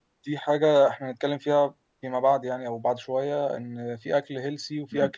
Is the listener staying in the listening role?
Yes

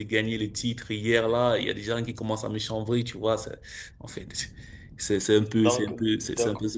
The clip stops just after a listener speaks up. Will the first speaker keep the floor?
Yes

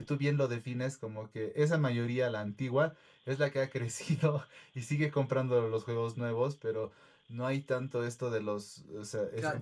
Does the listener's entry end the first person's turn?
Yes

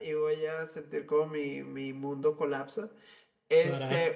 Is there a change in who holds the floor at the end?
No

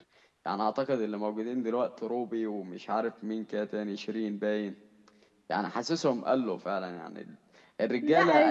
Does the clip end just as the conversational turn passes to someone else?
Yes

